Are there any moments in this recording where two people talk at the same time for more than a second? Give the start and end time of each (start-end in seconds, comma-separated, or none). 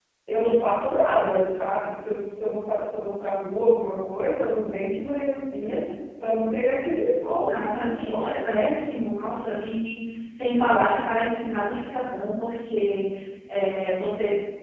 7.3-8.6